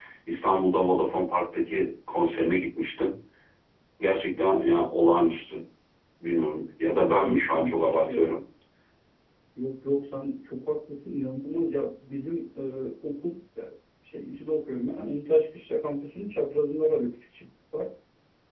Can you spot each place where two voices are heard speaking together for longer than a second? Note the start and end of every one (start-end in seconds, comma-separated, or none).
7.1-8.4